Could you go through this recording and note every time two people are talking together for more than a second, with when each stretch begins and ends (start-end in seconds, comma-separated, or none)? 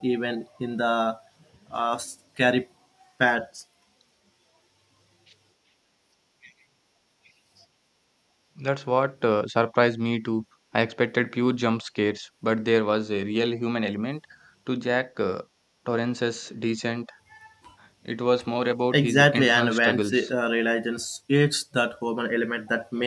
18.9-20.3